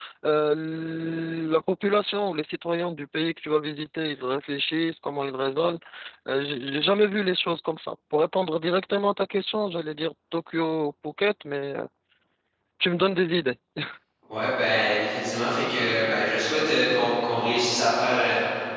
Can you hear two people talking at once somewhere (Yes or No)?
No